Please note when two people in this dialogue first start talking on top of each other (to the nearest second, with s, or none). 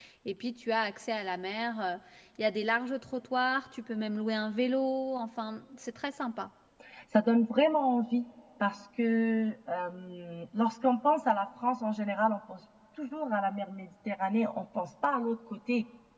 none